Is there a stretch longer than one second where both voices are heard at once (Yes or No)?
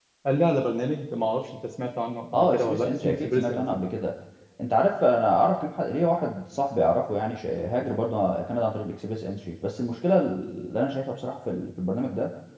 Yes